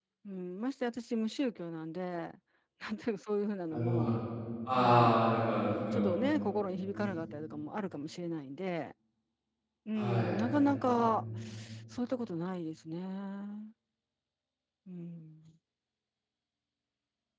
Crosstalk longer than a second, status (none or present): present